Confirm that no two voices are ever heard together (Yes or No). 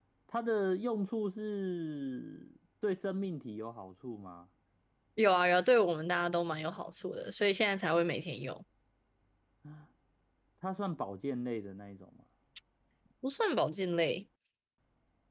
Yes